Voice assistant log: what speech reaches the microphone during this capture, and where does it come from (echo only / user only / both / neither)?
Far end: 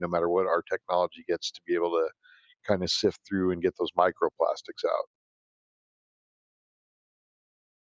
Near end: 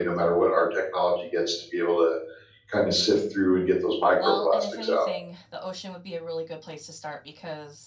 both